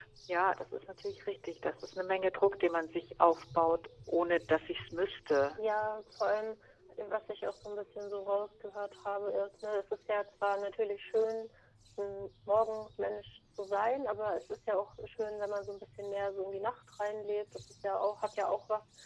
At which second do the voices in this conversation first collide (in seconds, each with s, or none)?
none